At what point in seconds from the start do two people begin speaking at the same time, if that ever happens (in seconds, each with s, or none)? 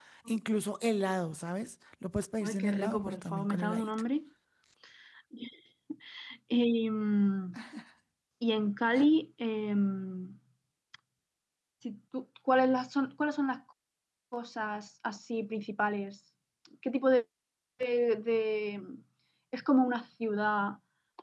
2.4 s